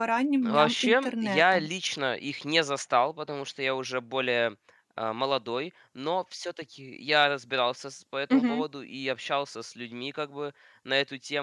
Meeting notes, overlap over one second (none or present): present